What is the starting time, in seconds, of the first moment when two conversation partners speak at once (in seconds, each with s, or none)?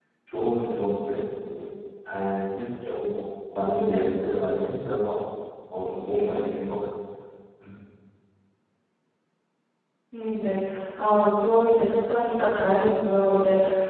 none